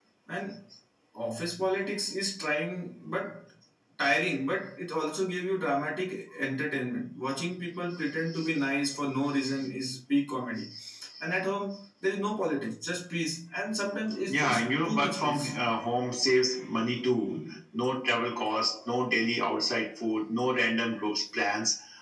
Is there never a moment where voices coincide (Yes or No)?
No